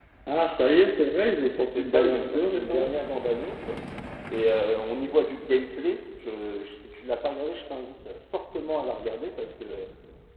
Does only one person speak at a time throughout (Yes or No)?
No